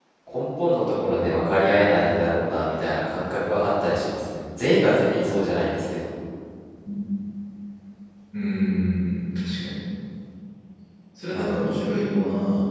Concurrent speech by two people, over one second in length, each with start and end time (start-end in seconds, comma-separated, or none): none